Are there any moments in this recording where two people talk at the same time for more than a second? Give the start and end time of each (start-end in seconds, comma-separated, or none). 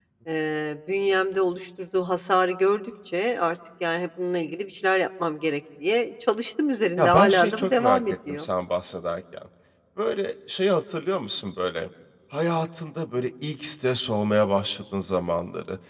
7.0-8.5